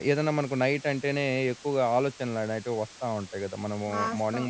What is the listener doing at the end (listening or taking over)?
taking over